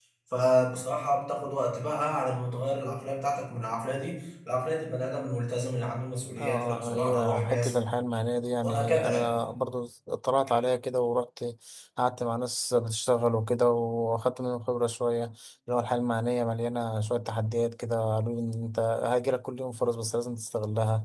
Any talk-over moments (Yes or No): Yes